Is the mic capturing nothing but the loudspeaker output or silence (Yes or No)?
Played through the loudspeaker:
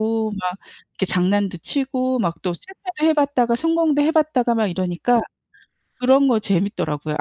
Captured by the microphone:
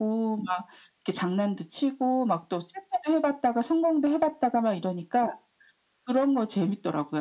Yes